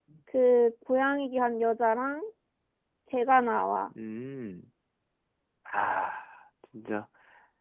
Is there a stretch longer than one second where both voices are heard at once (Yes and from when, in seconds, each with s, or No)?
No